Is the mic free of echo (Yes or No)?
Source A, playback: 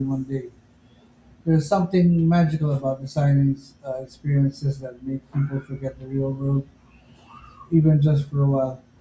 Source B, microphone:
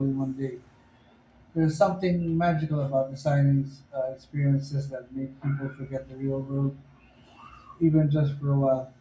No